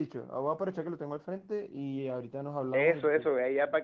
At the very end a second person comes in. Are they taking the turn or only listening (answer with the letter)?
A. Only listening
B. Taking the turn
B